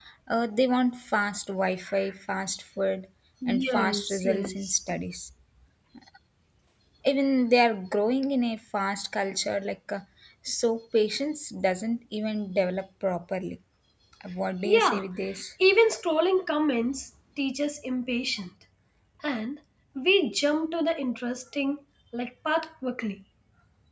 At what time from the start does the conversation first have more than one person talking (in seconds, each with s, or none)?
3.5 s